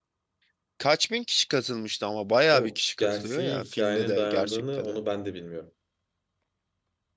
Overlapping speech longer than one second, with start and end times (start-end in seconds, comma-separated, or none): 2.5-5.0